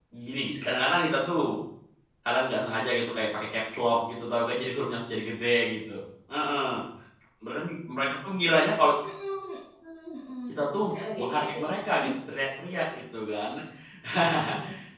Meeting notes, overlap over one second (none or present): present